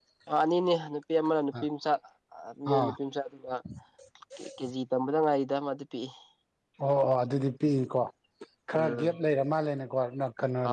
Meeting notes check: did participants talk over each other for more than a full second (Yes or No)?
No